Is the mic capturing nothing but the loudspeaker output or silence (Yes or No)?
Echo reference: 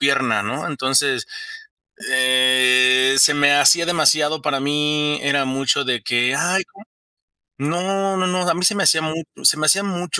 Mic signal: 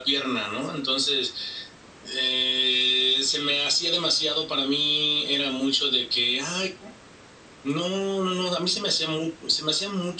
Yes